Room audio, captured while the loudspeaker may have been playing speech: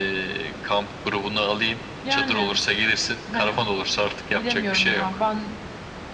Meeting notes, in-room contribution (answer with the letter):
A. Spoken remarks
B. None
B